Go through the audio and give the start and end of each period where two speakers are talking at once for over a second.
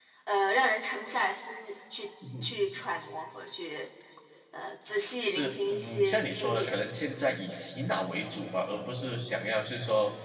5.2-6.8

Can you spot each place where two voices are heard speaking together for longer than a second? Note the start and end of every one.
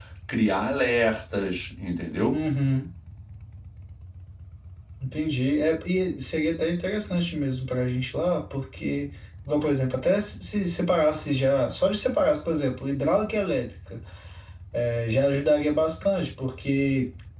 none

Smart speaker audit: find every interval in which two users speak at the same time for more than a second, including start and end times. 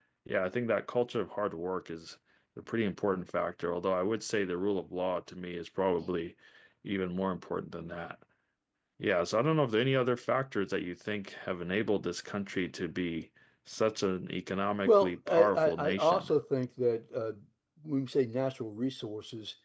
14.9-16.3

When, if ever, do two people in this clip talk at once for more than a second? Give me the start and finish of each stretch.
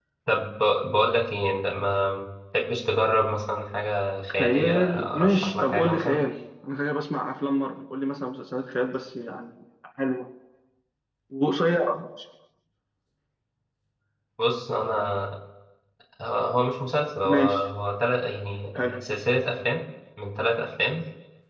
4.4-6.2

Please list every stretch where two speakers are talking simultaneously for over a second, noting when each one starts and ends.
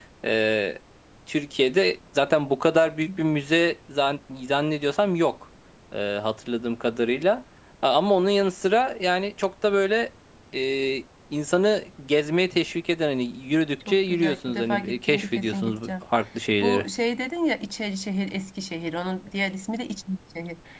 13.9-15.9

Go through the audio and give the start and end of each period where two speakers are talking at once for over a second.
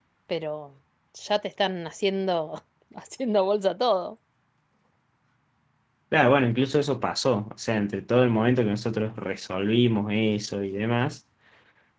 none

